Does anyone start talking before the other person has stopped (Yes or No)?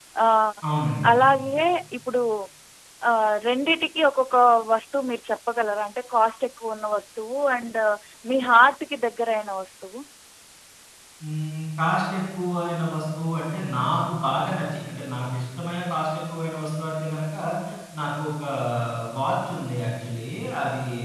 No